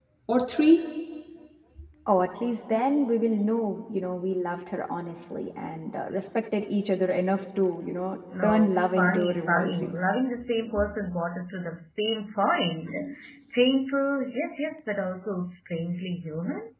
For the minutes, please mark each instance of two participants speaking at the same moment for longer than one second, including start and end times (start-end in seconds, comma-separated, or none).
8.4-9.9